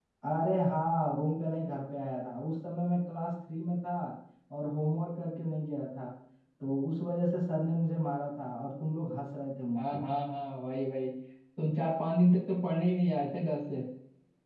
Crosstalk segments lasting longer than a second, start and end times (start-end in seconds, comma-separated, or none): none